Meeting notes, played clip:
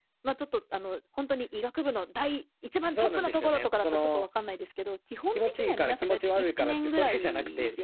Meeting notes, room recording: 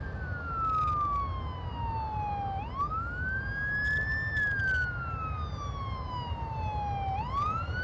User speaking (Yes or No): No